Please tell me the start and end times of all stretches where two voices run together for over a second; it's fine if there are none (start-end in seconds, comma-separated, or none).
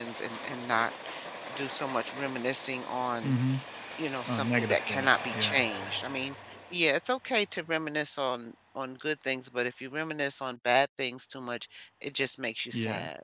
4.3-5.6